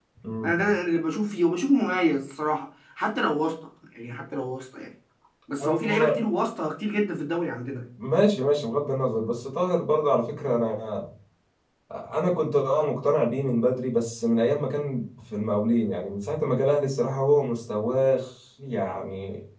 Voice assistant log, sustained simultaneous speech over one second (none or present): none